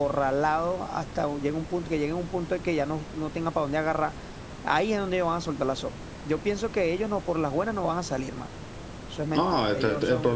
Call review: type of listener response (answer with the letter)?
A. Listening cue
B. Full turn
B